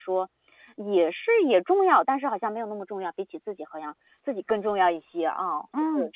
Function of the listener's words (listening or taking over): taking over